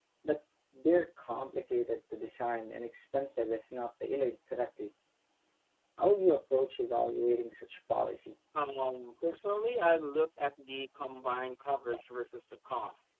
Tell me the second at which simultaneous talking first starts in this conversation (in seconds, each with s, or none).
none